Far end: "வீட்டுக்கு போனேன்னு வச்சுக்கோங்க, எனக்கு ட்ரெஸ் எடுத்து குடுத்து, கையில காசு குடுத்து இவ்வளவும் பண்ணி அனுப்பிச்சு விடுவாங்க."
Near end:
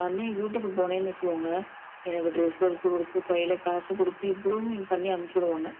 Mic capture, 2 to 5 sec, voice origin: echo only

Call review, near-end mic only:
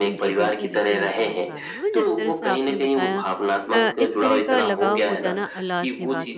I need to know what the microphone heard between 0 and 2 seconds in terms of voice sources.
both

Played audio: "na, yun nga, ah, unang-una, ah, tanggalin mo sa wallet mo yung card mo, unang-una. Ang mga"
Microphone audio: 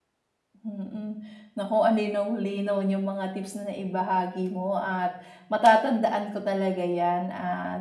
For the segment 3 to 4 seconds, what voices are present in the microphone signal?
user only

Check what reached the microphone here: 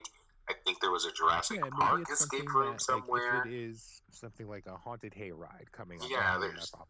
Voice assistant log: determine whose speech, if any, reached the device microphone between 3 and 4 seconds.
both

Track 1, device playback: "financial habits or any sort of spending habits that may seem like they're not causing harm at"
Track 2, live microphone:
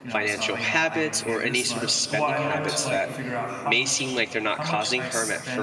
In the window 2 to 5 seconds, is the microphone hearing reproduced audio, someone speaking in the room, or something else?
both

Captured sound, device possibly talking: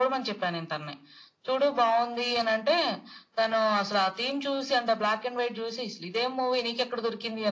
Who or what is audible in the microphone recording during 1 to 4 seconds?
echo only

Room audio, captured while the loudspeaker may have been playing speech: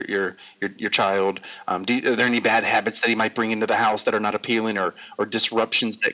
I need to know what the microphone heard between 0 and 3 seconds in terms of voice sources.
echo only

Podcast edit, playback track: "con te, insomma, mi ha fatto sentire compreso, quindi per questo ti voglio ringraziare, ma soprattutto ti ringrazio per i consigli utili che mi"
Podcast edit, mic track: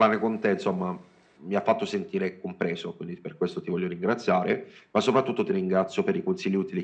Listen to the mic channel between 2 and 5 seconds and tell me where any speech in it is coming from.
echo only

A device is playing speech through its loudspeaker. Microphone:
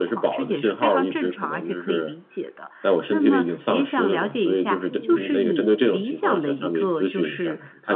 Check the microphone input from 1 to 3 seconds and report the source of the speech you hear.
echo only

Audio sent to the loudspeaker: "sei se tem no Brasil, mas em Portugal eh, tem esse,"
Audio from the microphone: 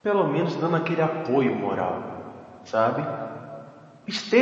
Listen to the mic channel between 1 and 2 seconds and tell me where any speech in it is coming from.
user only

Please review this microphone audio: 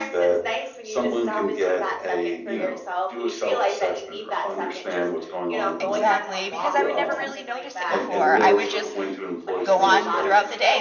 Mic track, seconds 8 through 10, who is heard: both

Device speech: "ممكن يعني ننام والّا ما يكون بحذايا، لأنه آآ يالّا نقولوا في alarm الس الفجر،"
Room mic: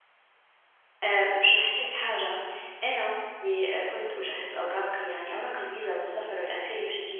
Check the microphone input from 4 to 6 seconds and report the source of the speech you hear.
user only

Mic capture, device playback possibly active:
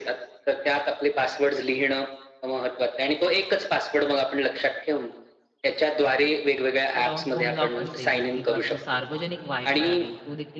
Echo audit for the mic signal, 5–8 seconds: both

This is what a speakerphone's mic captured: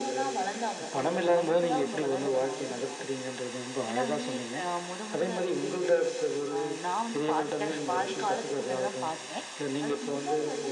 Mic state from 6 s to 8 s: echo only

